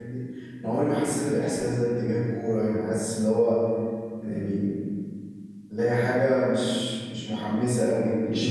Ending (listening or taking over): listening